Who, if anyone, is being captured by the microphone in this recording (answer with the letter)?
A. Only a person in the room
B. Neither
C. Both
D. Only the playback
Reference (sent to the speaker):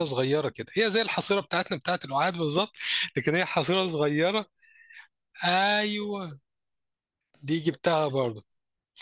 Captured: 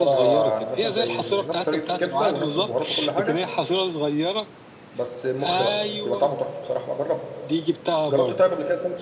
C